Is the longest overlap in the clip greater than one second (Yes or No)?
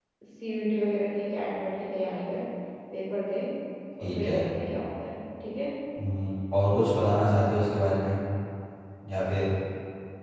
No